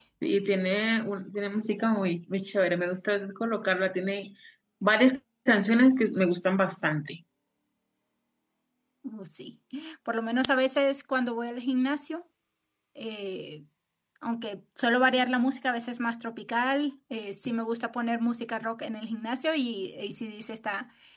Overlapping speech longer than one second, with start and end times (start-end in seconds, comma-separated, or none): none